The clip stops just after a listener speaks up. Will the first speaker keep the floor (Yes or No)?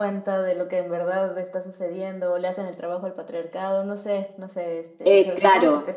No